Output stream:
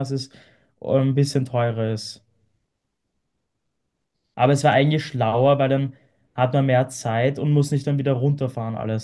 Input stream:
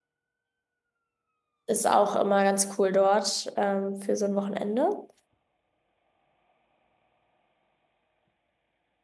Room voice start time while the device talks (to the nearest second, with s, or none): 2 s